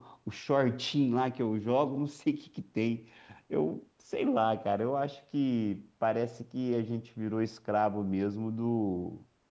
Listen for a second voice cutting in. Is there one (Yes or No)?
No